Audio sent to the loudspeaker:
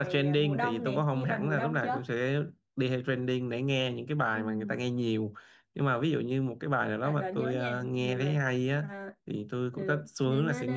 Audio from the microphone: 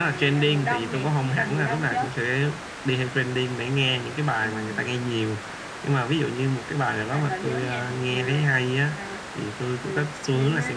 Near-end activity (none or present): none